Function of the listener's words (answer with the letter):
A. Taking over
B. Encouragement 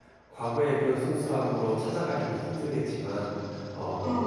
B